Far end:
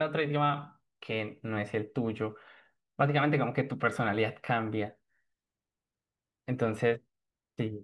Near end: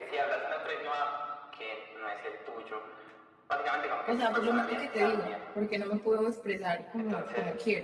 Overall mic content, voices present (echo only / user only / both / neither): both